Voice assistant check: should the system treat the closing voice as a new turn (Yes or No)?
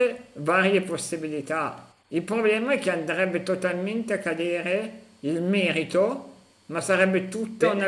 No